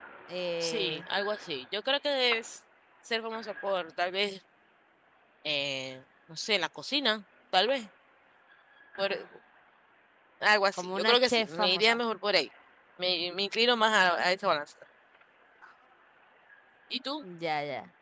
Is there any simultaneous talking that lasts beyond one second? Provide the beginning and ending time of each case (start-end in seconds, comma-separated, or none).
10.7-12.0